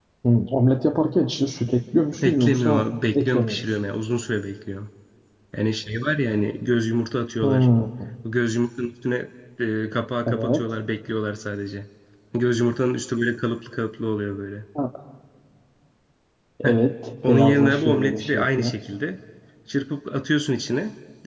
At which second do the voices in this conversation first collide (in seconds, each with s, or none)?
2.2 s